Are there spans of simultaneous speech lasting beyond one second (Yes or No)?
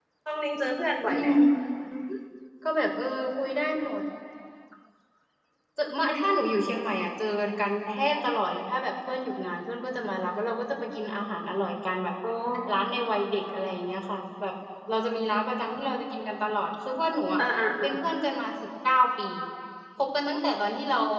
No